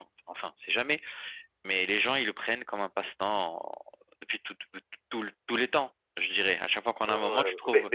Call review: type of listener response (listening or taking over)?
taking over